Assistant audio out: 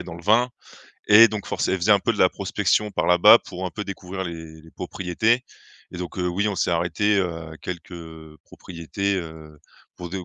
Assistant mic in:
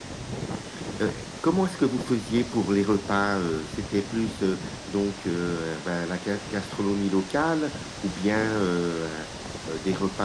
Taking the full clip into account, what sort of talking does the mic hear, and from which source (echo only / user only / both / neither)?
user only